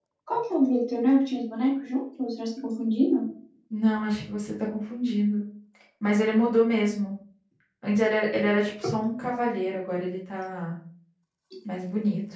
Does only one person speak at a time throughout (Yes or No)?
Yes